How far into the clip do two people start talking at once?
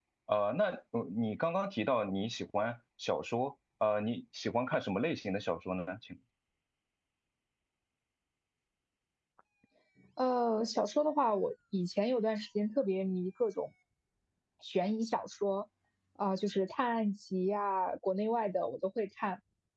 none

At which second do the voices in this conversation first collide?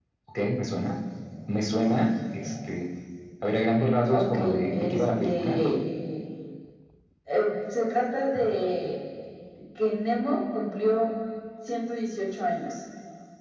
4.1 s

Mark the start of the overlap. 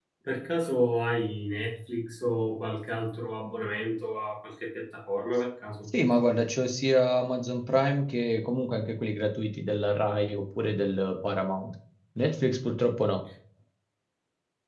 none

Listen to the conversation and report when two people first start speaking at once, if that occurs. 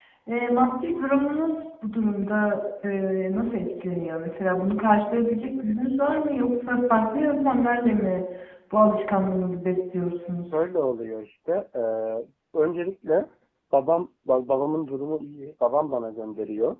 none

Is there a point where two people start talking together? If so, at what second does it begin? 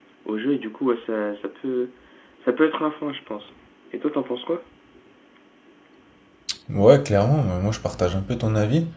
none

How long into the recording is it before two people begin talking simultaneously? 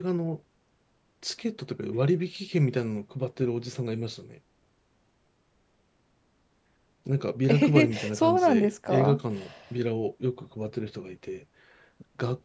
7.5 s

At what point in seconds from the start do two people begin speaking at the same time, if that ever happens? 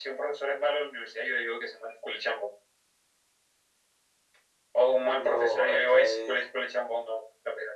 4.9 s

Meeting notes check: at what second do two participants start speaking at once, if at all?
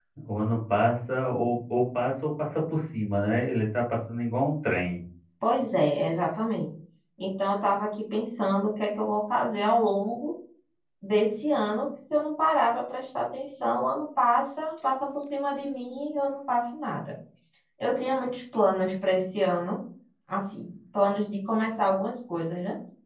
none

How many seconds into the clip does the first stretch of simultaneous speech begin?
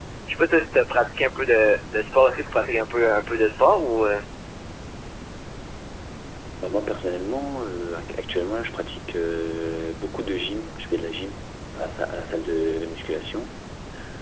none

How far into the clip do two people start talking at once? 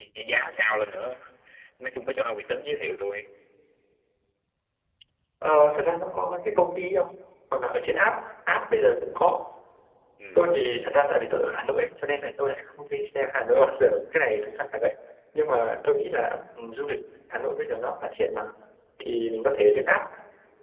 none

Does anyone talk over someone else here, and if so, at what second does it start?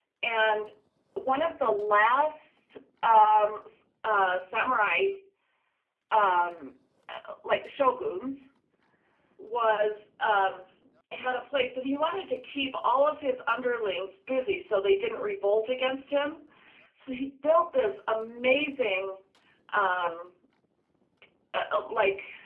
none

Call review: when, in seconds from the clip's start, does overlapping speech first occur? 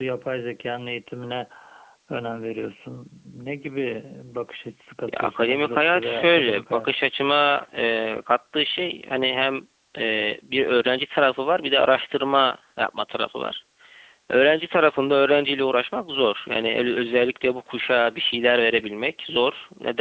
5.1 s

